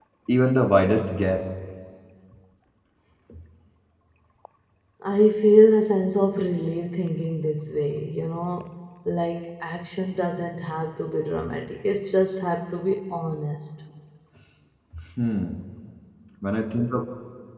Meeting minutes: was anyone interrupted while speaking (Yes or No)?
No